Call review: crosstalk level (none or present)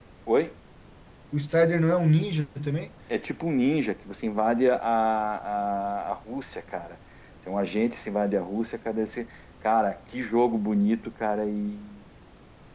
none